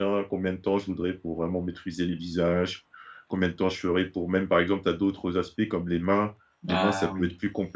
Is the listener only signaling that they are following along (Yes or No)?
Yes